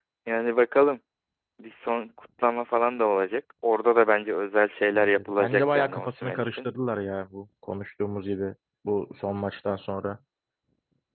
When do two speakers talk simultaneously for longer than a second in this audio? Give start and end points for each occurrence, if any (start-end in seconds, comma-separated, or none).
4.9-6.6